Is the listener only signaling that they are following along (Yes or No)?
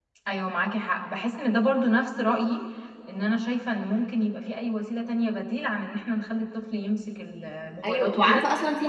No